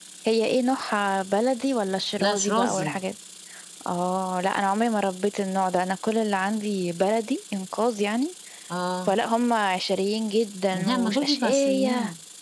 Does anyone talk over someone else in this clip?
Yes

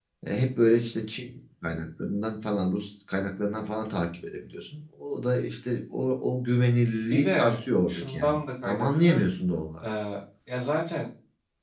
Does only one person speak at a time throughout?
No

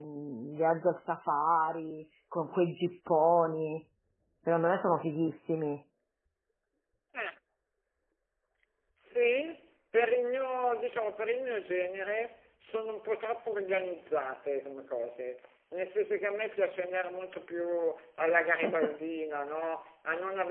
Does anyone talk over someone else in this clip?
No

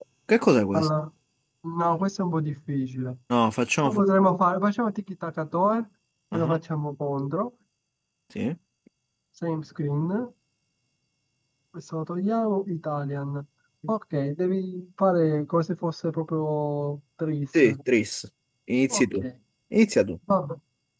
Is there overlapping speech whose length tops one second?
No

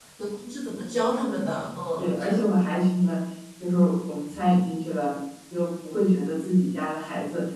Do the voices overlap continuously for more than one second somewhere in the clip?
No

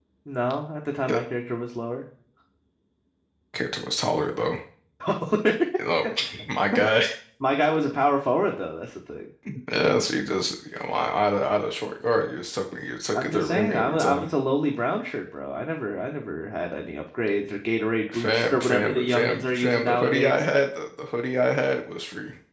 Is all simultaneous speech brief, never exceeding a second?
No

